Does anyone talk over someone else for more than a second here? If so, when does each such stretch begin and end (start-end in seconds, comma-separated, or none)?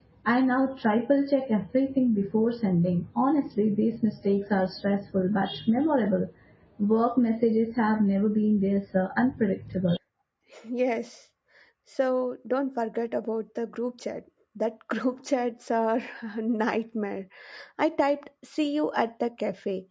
none